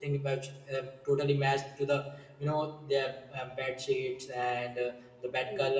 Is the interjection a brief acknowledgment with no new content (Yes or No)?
Yes